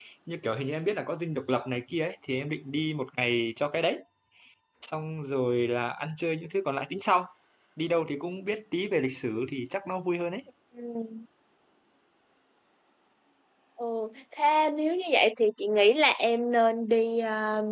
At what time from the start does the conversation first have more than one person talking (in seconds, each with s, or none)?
none